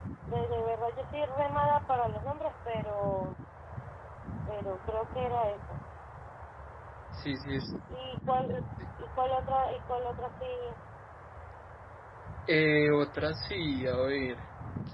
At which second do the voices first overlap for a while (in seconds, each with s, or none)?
none